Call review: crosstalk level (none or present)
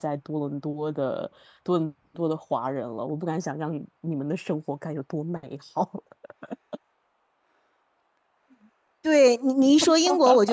none